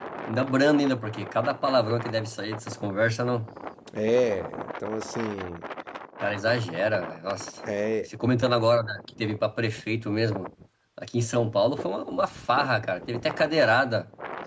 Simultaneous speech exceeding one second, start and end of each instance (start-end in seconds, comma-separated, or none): none